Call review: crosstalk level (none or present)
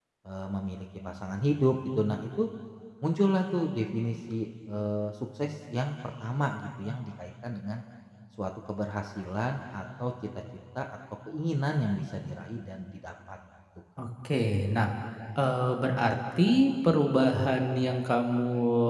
none